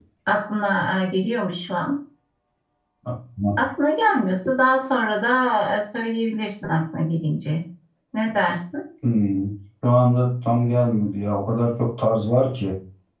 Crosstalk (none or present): none